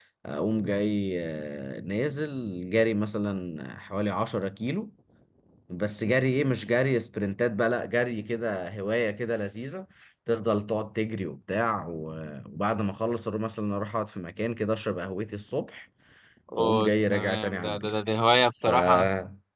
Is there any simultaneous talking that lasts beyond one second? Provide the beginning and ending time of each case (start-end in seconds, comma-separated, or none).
16.6-17.9